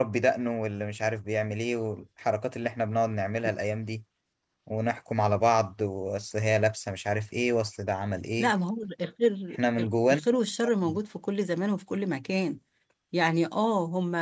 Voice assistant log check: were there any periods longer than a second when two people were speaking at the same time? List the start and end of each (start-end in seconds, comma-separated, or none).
none